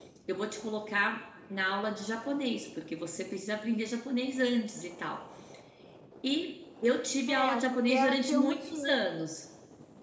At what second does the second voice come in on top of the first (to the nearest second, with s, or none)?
7 s